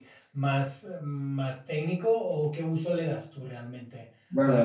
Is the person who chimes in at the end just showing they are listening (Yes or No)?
No